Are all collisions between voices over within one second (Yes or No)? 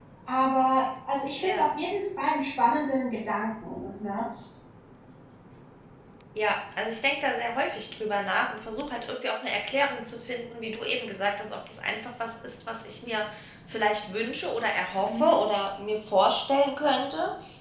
Yes